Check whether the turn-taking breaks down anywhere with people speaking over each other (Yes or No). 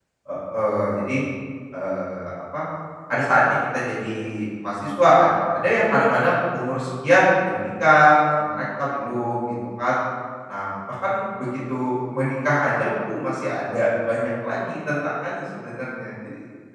No